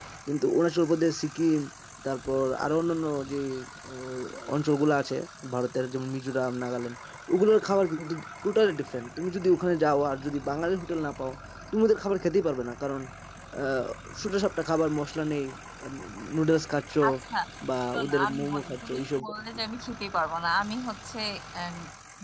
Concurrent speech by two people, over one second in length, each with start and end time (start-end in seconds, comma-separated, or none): 17.9-19.2